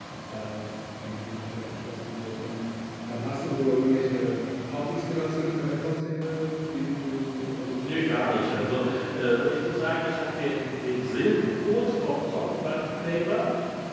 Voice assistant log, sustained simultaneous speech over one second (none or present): present